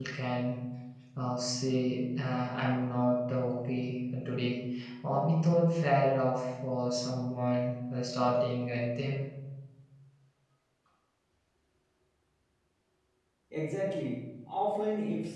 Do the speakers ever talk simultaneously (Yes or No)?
No